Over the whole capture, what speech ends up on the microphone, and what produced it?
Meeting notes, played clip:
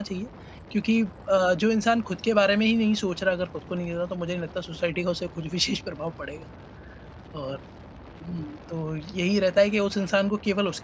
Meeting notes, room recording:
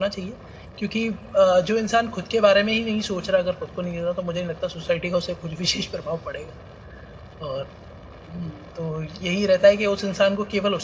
echo only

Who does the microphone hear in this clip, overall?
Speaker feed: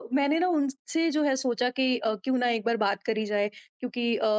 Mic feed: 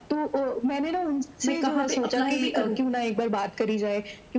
both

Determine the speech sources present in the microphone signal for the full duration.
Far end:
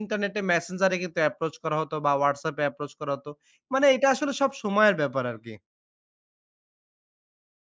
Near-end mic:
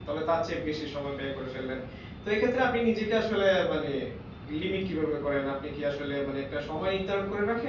user only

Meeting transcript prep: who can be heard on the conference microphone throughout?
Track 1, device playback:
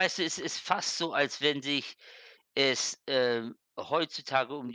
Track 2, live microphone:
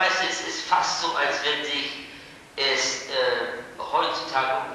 echo only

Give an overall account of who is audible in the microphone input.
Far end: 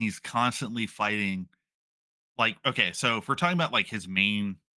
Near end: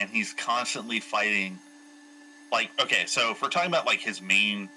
echo only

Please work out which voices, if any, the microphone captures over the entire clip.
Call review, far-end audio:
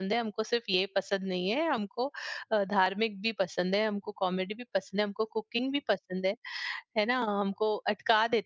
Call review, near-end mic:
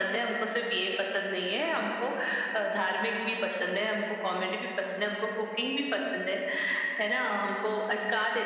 echo only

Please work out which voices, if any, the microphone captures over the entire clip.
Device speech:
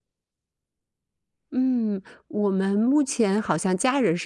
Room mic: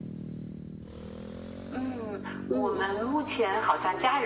both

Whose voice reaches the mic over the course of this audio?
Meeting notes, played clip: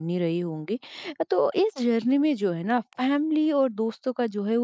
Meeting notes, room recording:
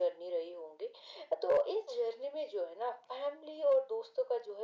echo only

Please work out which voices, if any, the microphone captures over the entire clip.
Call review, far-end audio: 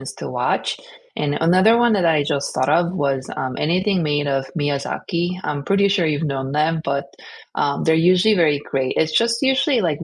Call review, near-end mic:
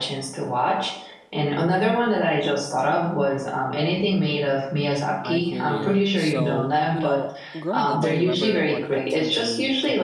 both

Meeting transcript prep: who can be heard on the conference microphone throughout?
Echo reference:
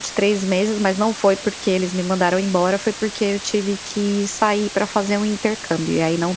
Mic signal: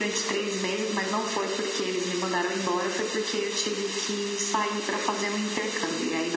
echo only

